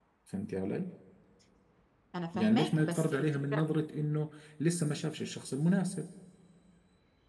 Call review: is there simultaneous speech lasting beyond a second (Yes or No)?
Yes